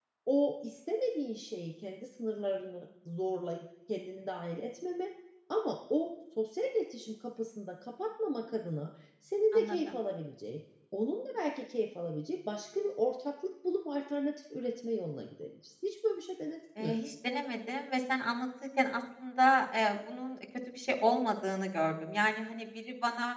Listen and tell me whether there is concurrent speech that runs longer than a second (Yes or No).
No